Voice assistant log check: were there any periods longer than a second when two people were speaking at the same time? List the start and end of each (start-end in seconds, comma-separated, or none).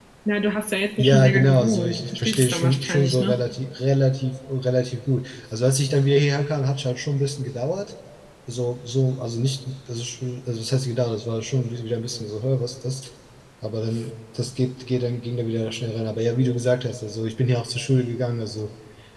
1.0-3.4